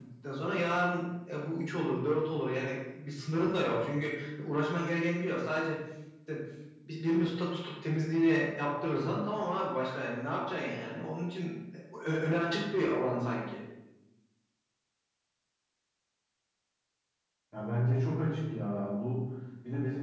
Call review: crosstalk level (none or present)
none